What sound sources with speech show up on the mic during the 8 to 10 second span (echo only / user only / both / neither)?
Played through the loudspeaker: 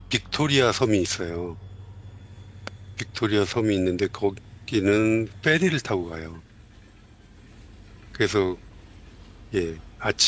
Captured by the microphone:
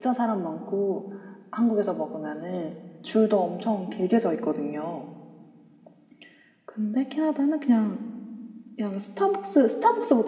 user only